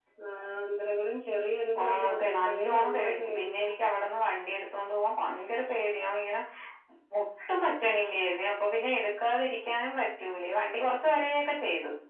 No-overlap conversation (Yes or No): No